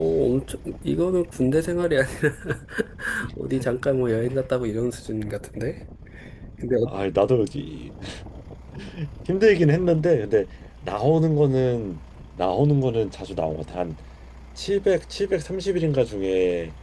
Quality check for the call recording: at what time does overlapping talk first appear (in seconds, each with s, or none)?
none